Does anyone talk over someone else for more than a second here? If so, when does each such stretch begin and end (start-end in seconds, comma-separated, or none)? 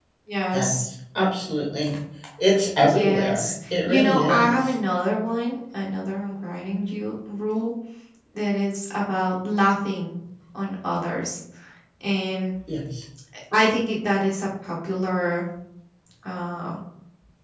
2.9-4.6